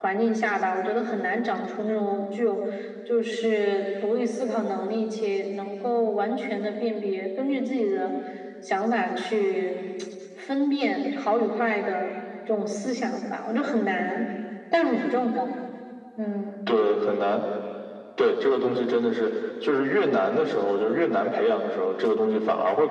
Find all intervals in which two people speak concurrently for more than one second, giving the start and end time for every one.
none

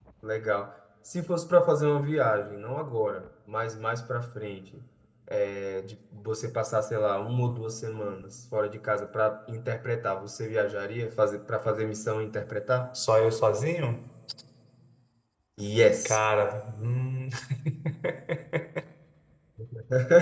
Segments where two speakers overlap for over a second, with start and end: none

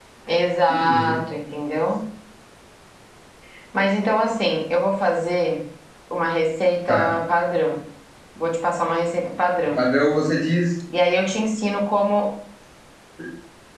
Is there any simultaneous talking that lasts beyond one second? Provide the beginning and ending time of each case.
none

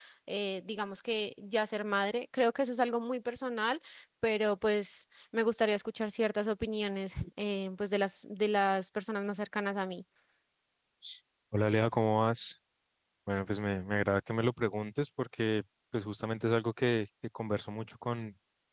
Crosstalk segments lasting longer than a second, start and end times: none

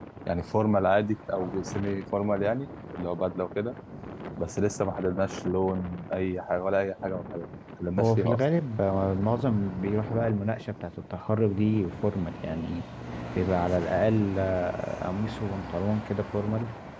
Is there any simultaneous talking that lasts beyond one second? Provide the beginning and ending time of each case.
none

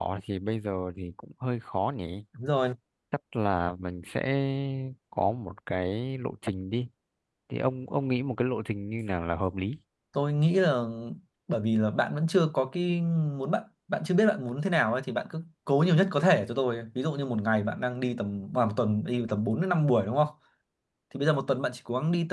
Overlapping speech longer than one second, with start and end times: none

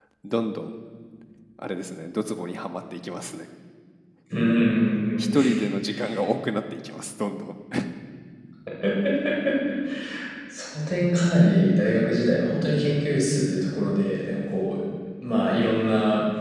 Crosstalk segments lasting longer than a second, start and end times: none

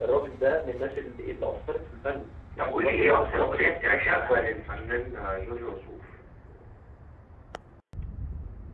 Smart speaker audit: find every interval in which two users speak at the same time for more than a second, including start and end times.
2.6-4.8

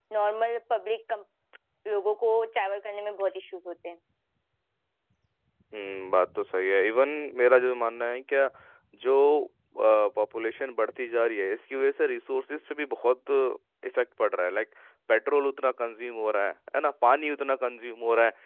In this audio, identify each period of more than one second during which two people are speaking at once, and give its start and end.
none

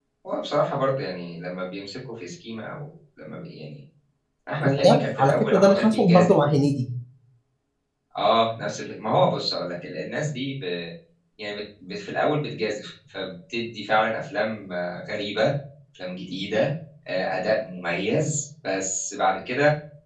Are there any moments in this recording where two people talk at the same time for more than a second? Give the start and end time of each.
4.6-6.3

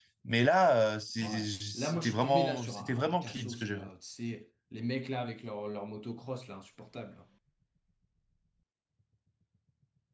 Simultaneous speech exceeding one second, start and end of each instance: 1.2-3.8

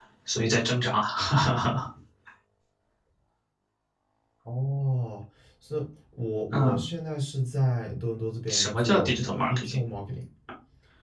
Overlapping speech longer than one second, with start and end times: 8.5-9.8

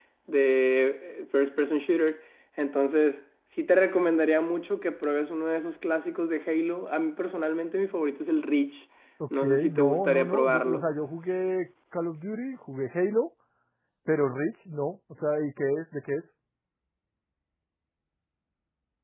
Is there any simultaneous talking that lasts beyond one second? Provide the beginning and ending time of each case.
9.4-10.9

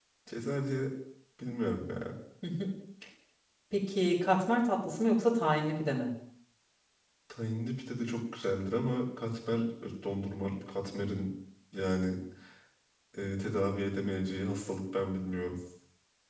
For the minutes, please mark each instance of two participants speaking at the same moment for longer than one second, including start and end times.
none

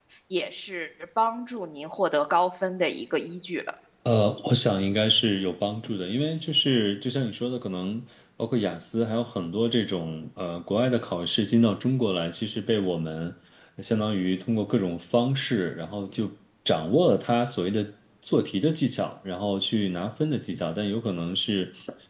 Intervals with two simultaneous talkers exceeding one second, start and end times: none

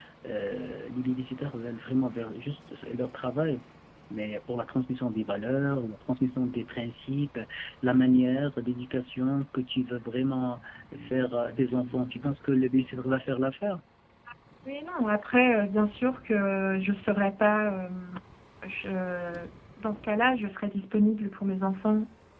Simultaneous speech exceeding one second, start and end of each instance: none

